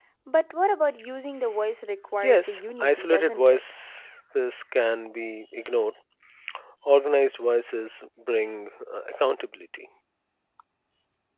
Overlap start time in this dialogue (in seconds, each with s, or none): 2.2 s